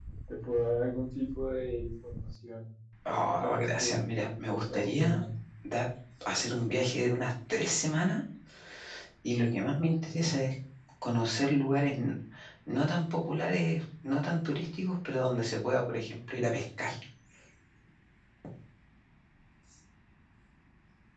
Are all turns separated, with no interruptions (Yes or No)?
No